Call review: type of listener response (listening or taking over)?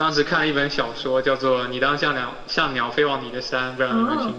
taking over